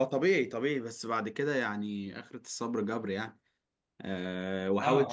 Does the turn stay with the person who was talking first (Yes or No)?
Yes